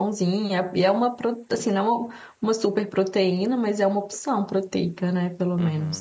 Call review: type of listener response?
taking over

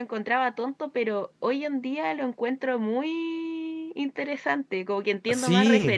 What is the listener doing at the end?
listening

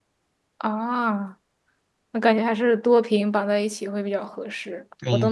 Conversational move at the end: taking over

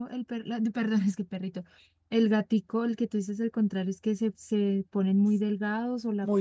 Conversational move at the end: taking over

